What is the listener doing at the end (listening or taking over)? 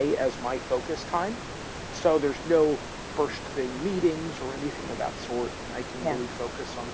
listening